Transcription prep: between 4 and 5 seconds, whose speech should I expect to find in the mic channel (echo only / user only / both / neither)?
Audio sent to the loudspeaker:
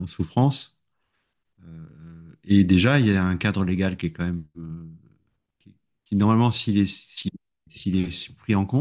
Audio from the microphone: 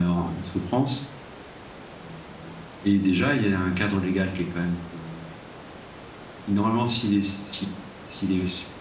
echo only